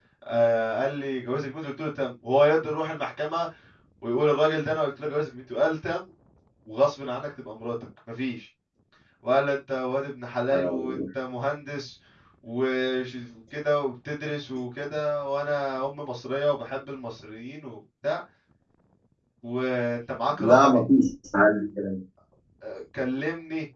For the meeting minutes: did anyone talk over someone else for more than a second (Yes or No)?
No